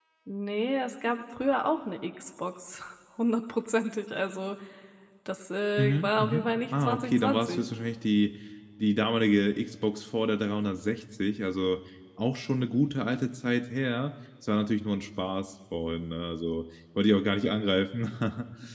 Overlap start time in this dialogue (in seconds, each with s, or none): 5.8 s